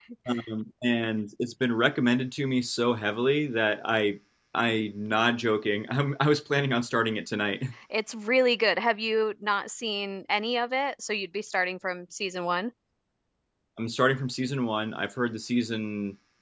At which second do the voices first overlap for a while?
none

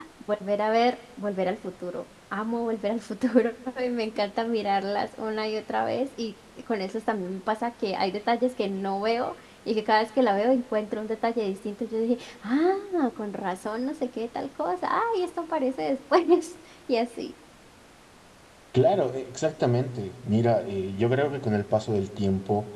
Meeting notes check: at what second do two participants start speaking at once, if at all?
none

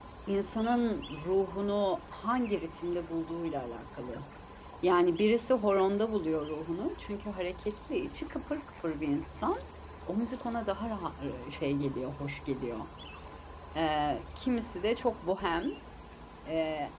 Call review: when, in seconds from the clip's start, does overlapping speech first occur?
none

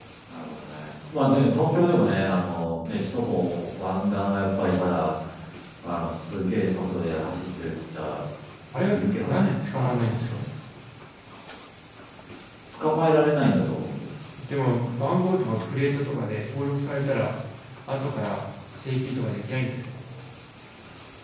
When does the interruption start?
8.9 s

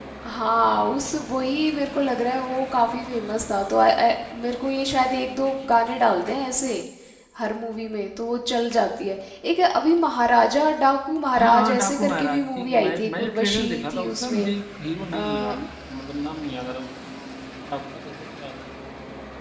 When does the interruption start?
11.4 s

